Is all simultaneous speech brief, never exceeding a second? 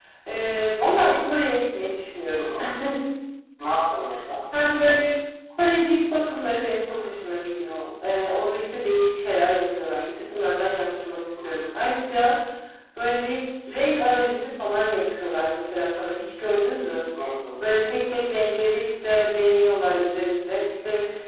Yes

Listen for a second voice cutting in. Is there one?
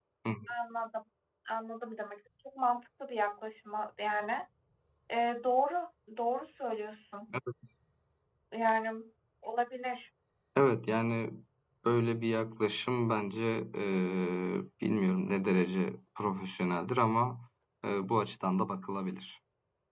No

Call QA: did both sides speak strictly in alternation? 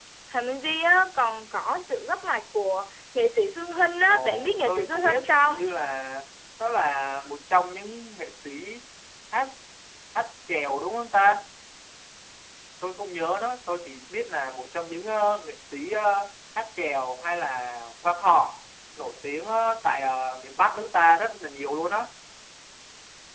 No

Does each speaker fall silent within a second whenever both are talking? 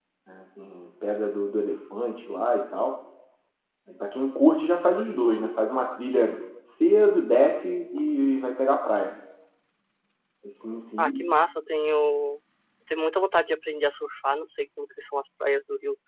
Yes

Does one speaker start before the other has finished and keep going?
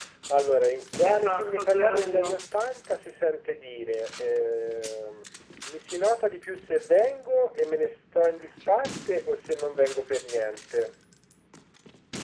Yes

